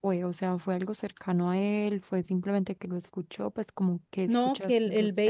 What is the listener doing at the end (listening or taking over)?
taking over